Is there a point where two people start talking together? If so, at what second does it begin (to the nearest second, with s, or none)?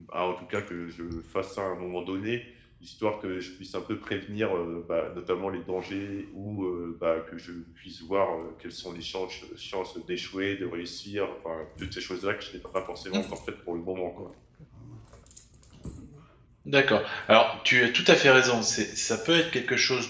none